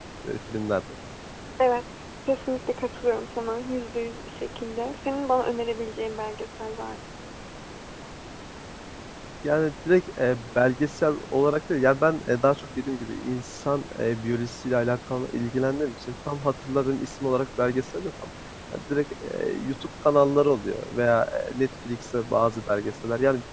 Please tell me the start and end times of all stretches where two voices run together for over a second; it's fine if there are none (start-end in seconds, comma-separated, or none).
none